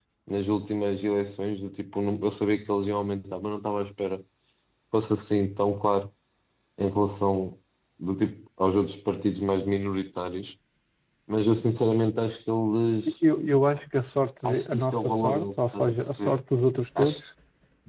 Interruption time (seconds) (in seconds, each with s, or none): 14.4 s